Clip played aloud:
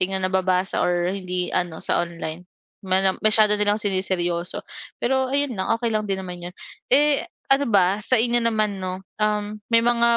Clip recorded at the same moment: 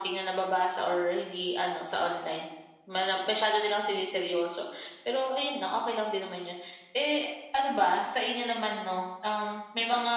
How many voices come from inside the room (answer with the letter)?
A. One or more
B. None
B